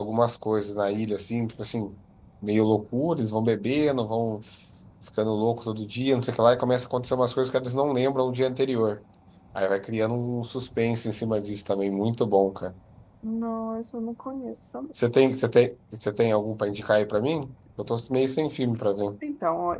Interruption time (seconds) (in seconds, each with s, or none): none